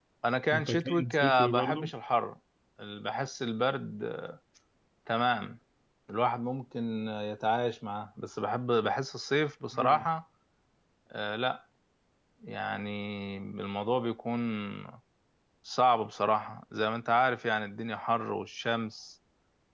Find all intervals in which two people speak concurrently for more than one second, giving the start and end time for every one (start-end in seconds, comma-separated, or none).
0.5-1.9